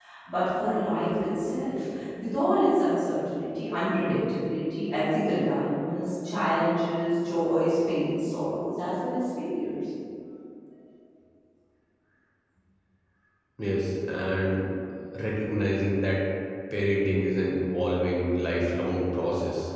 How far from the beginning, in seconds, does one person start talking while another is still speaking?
none

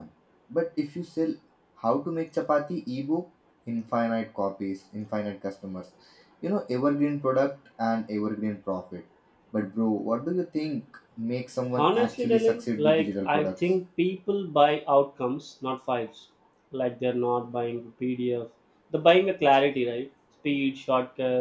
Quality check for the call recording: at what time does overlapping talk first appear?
11.8 s

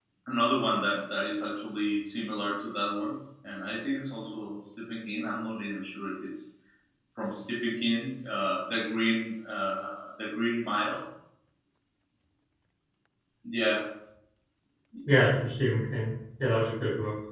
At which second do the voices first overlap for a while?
none

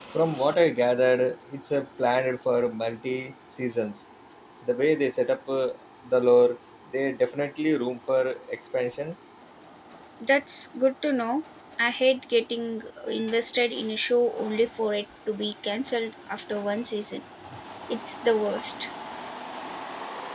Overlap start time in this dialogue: none

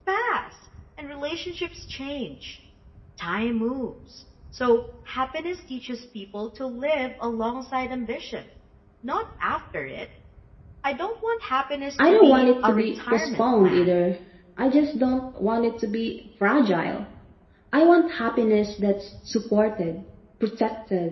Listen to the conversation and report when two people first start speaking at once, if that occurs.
12.0 s

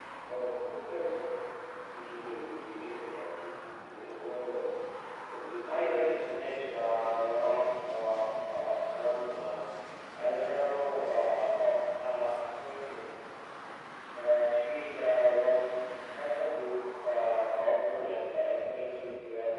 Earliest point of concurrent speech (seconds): 5.7 s

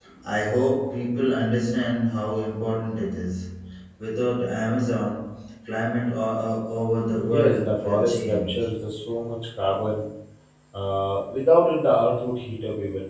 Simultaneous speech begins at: 7.1 s

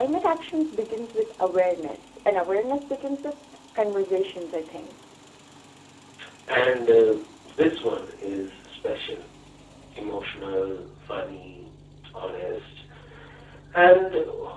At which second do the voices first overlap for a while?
none

